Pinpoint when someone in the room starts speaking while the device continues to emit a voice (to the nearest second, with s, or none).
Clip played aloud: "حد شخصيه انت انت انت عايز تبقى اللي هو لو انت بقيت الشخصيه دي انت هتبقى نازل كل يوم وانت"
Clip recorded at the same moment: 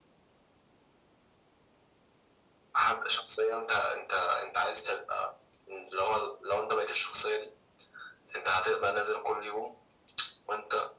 none